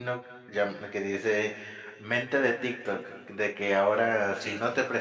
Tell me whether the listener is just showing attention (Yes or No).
Yes